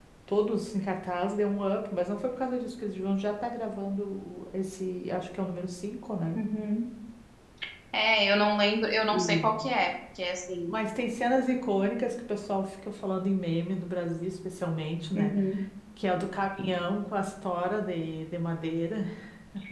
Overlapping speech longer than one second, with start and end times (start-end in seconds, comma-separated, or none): none